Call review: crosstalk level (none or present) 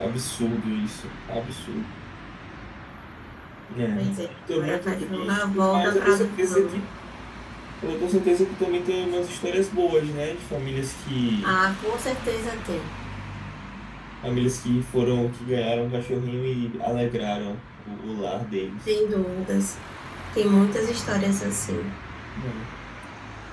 present